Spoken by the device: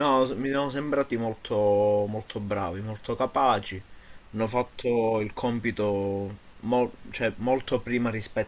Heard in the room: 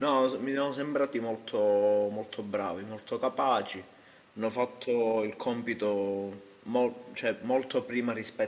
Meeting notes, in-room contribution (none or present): none